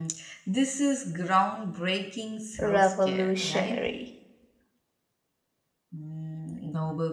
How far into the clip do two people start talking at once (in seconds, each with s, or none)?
2.6 s